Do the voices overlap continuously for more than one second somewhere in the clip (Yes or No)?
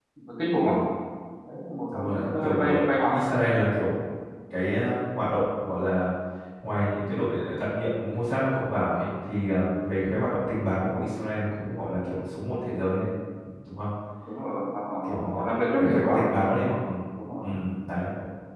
Yes